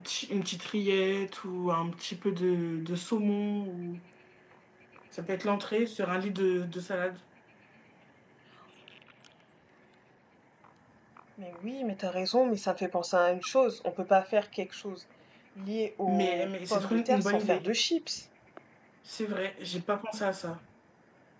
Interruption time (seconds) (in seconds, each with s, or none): 16.1 s